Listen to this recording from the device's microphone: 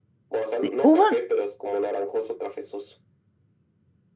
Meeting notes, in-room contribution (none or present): present